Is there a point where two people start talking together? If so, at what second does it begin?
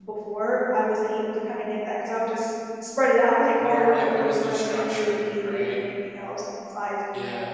3.6 s

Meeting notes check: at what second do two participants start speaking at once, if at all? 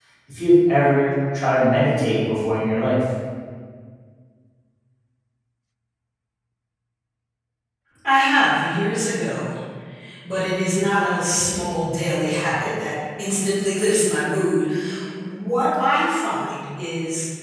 none

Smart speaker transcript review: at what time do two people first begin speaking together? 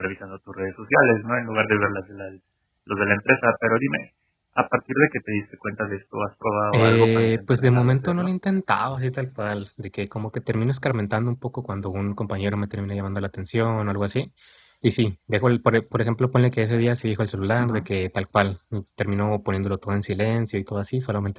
6.7 s

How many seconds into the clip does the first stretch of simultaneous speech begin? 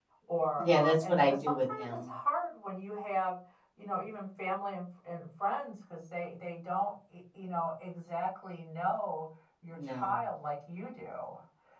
0.6 s

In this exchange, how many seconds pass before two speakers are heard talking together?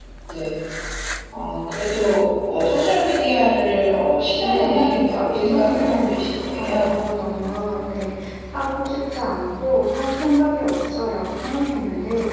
4.4 s

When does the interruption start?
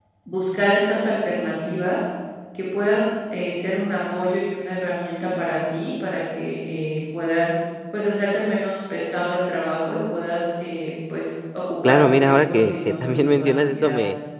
11.8 s

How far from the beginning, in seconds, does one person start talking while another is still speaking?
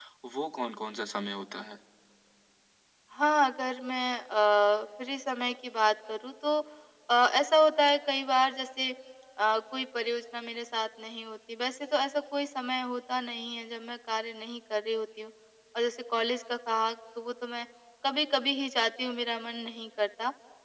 none

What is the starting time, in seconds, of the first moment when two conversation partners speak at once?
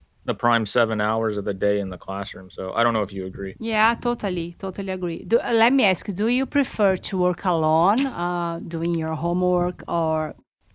none

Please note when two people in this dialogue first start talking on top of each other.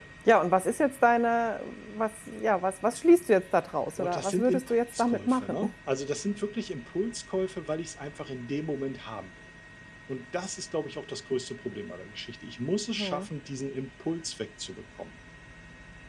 4.0 s

